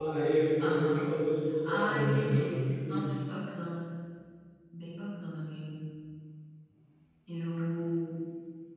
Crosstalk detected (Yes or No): Yes